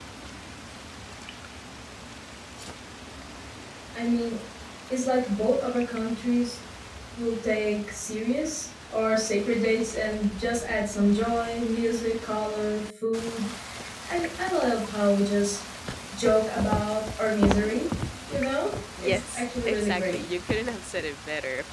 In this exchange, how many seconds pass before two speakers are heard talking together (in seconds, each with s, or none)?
19.0 s